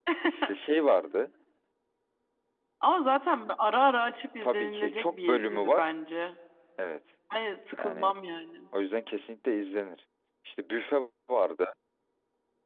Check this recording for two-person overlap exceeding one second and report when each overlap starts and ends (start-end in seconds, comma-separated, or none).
4.4-5.9